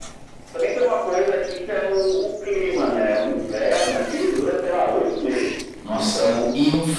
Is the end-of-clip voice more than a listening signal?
Yes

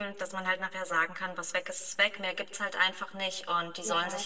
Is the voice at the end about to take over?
Yes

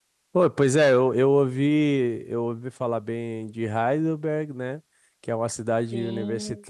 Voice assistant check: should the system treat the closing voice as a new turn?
No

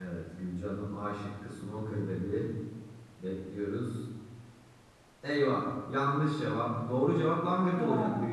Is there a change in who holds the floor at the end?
No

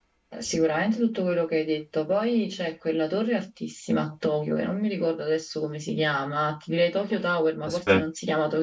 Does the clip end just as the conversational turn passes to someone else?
No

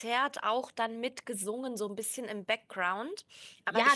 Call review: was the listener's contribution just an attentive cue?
No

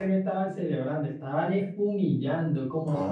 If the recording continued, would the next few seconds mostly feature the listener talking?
No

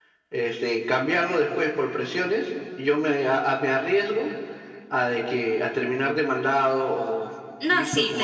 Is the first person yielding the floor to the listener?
Yes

